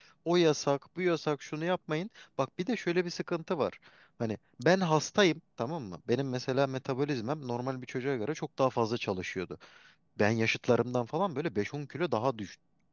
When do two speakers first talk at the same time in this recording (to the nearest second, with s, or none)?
none